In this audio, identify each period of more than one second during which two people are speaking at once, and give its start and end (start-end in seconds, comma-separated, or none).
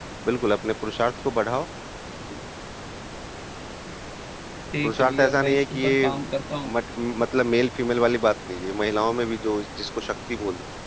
4.8-6.1